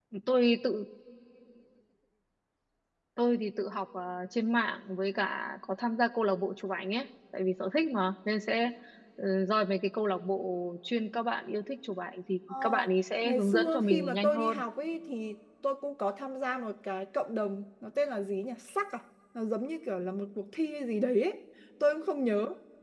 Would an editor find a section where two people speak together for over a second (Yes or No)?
Yes